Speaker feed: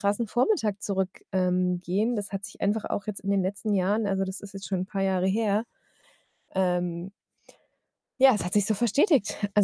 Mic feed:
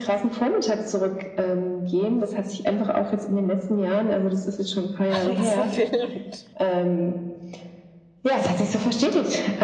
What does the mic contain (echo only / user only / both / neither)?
both